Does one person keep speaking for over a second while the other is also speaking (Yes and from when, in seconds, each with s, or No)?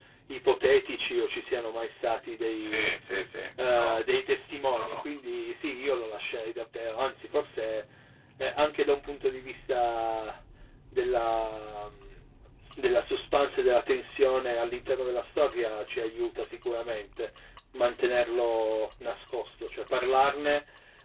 No